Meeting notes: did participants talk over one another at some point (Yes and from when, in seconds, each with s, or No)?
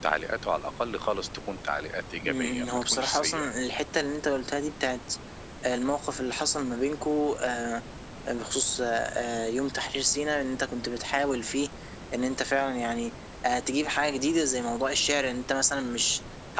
Yes, from 2.2 s